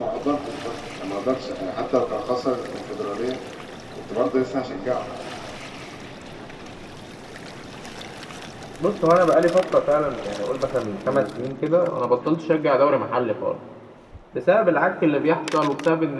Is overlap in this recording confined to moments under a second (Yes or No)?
Yes